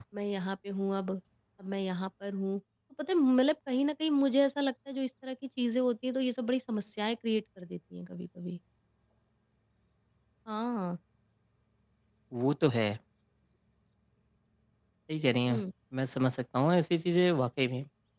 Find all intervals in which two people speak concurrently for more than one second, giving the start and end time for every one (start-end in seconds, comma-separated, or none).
none